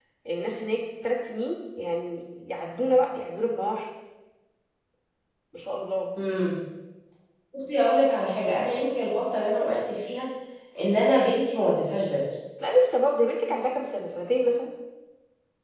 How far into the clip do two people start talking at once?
none

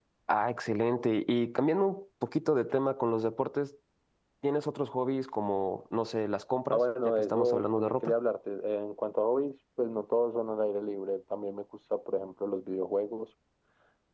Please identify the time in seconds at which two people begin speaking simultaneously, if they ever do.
6.7 s

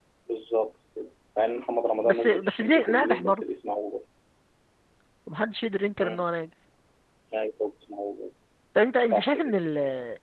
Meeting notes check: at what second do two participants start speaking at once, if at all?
2.0 s

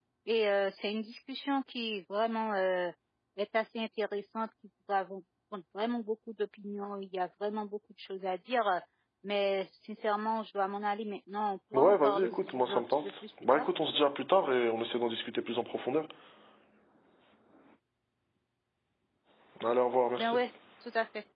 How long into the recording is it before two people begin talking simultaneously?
11.7 s

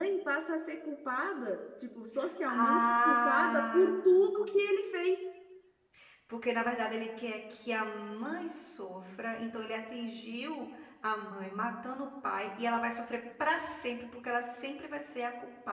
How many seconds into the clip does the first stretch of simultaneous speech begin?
2.5 s

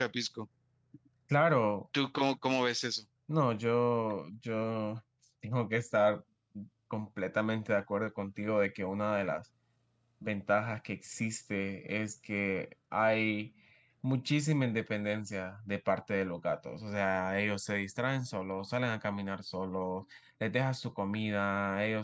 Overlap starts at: none

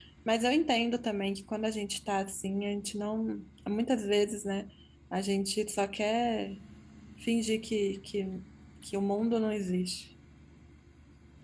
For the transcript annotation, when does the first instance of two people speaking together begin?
none

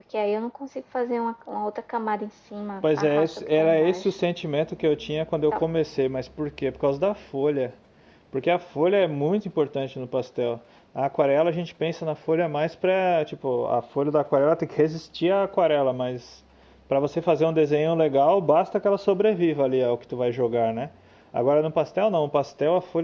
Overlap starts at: 2.8 s

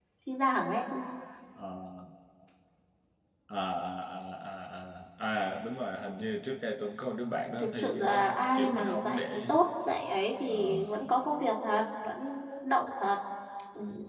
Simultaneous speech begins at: 7.6 s

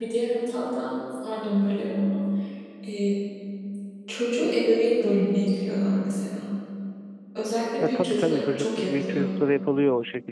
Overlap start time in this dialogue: 7.8 s

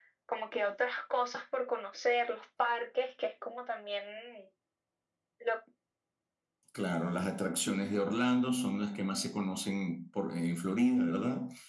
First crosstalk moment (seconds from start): none

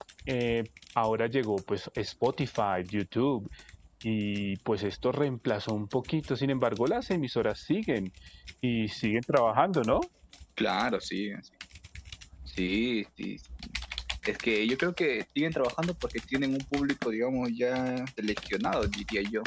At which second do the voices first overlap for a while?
none

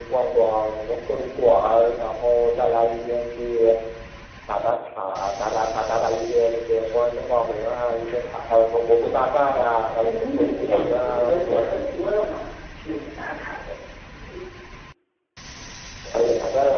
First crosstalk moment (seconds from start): 9.0 s

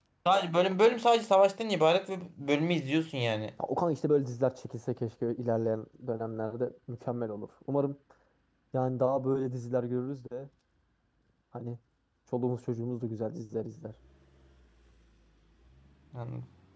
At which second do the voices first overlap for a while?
none

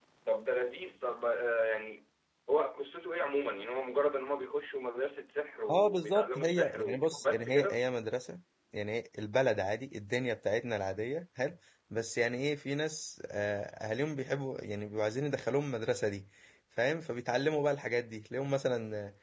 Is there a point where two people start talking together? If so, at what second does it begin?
5.7 s

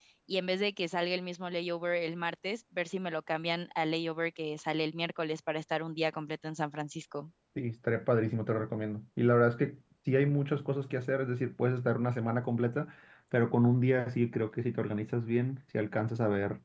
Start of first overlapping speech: none

